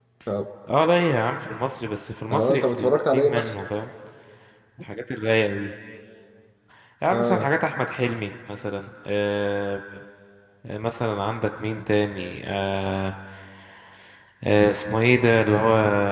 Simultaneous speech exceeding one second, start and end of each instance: 2.3-3.5

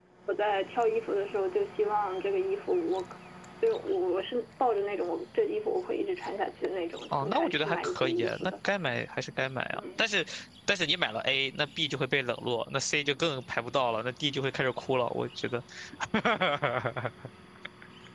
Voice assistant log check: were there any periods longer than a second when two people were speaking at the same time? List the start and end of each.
7.1-8.5

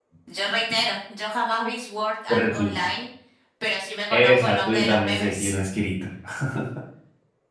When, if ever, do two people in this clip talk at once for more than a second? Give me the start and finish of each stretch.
4.1-5.5

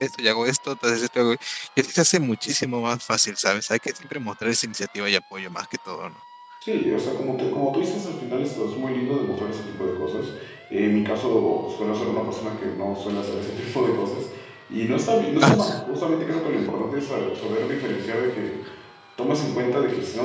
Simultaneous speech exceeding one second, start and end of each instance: none

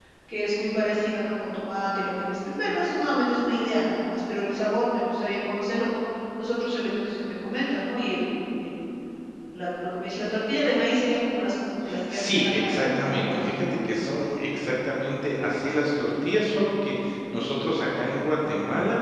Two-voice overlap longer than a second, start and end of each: 12.1-13.4

